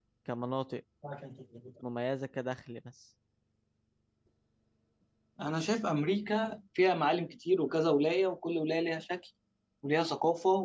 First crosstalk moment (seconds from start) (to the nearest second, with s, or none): none